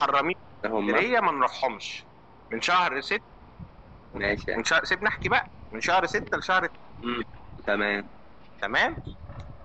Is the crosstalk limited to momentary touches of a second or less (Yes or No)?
Yes